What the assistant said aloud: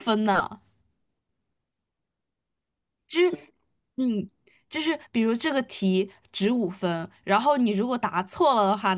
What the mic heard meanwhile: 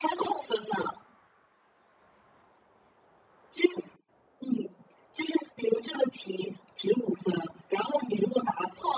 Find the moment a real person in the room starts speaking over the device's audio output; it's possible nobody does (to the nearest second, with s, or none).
none